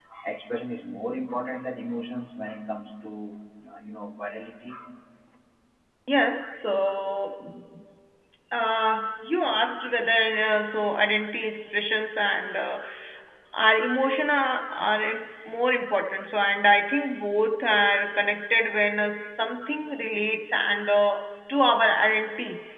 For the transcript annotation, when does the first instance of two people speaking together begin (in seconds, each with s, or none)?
none